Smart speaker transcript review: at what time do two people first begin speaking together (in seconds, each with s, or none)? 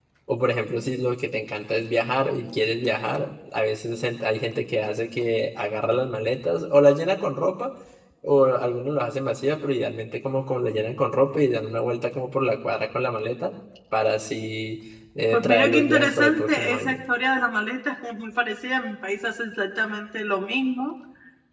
15.3 s